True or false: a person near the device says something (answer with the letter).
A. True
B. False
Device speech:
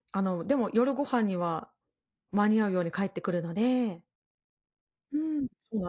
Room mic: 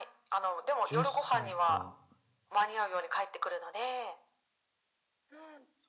A